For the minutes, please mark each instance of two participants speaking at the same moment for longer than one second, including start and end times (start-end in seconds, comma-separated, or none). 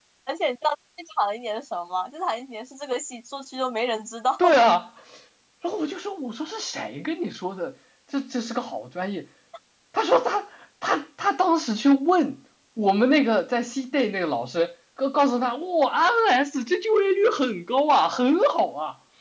none